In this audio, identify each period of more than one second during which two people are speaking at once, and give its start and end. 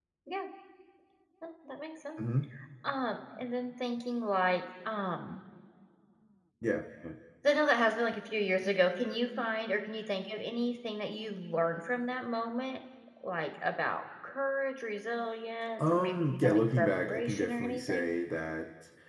15.8-18.1

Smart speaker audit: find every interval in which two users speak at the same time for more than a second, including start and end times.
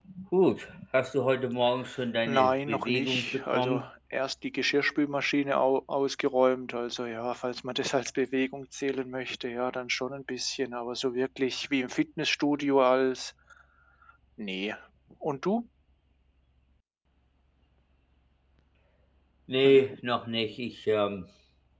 2.3-3.9

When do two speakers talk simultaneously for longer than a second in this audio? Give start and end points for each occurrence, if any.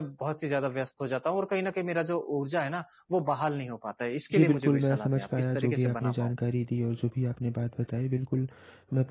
4.3-6.3

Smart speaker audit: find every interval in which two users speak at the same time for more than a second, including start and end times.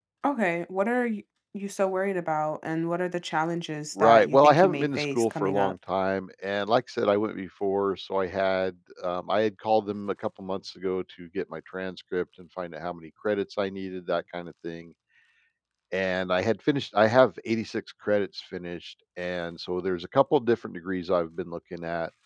4.0-5.7

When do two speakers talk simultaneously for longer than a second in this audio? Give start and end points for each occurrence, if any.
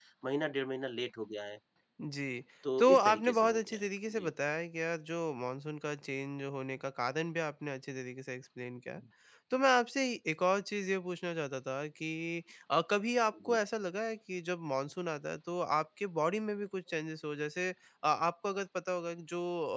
2.8-4.3

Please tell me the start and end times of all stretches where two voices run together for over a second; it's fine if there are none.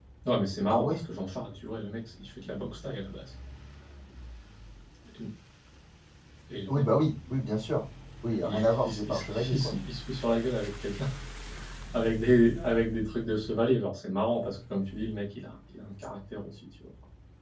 8.4-9.7

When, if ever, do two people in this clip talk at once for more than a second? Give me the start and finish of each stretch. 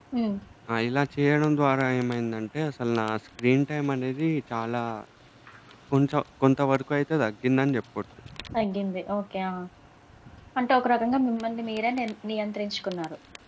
none

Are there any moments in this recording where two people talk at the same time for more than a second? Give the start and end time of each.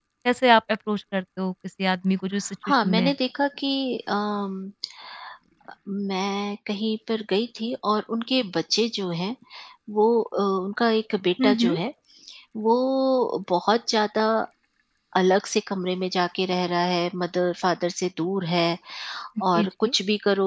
none

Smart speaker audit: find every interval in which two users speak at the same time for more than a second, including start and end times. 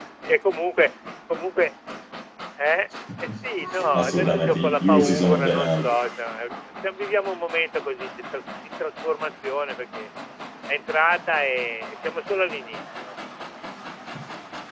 3.9-5.8

